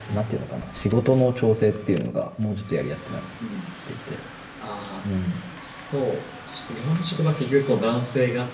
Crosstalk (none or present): none